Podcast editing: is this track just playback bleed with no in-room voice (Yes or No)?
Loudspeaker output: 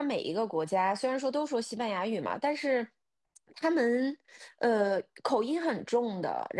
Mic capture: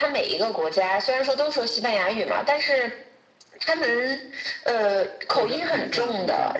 No